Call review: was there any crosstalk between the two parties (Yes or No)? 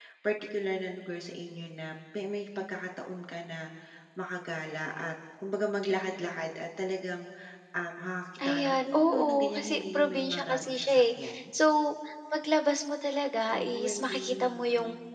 Yes